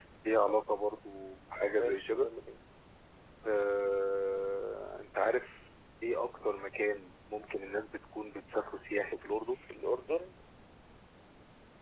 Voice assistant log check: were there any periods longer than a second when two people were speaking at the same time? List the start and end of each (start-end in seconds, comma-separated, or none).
none